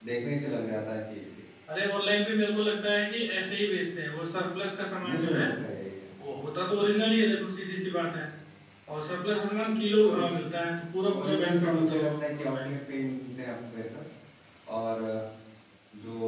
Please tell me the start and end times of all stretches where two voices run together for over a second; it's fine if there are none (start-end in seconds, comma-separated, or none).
11.2-12.8